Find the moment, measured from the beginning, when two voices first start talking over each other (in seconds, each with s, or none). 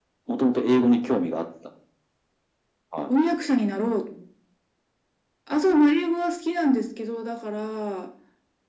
none